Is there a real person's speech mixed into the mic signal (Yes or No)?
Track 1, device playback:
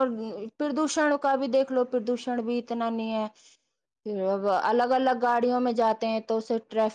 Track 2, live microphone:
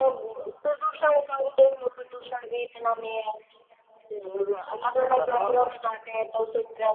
Yes